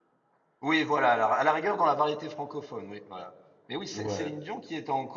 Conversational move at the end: listening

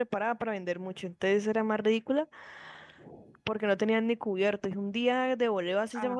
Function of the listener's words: listening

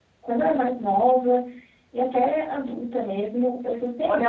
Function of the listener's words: taking over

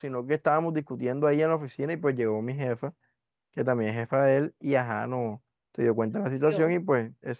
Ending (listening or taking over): listening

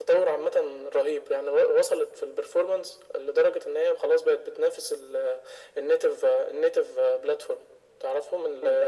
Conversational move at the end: listening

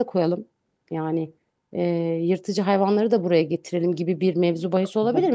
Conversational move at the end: listening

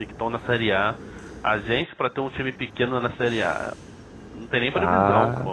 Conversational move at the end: taking over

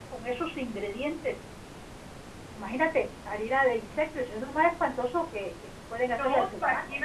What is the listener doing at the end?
taking over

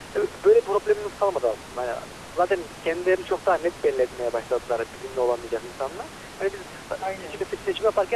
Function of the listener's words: listening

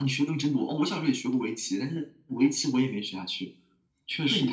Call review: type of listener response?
taking over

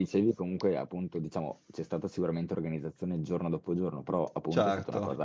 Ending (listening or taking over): listening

